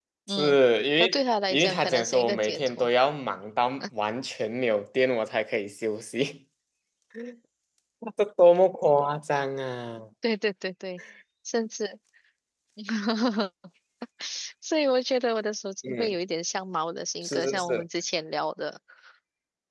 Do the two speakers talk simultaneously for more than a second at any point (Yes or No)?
Yes